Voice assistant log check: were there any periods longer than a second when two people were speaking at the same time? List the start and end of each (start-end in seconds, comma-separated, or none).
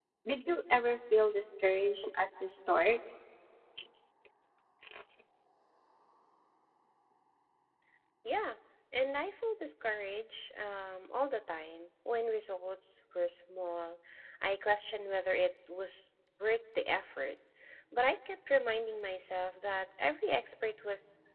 none